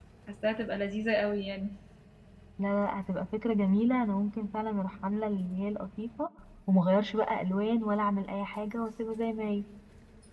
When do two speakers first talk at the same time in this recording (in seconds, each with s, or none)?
none